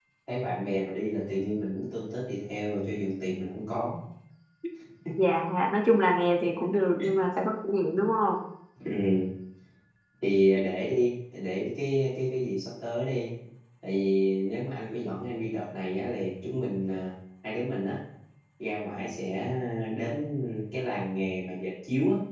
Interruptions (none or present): none